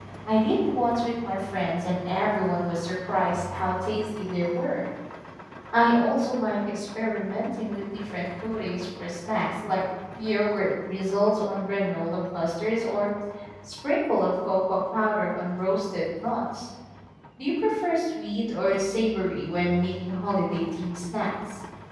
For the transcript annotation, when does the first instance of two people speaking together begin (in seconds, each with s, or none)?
none